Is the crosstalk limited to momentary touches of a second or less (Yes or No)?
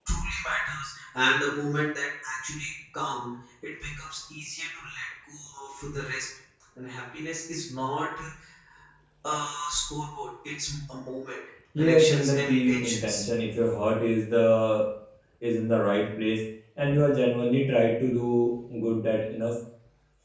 No